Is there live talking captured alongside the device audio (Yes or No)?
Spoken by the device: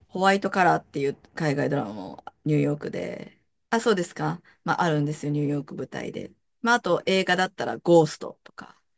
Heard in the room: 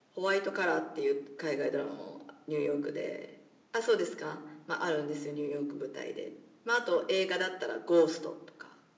No